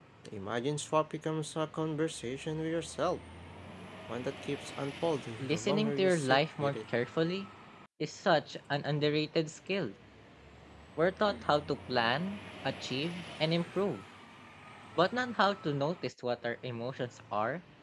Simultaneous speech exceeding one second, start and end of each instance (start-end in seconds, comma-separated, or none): 5.4-6.8